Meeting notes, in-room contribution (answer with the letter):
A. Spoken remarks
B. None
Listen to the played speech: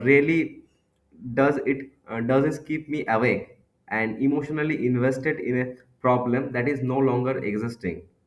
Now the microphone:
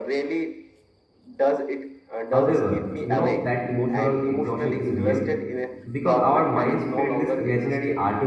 A